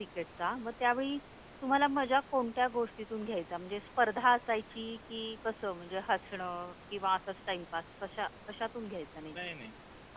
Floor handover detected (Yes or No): Yes